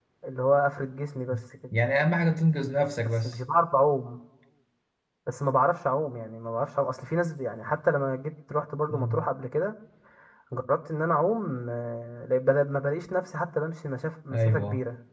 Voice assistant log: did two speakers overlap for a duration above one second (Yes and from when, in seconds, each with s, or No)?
No